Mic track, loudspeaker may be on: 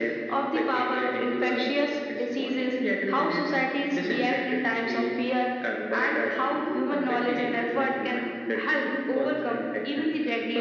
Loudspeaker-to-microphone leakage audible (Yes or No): Yes